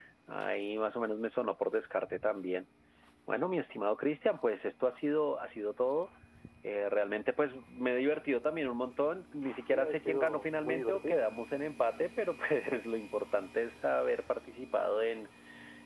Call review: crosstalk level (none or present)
present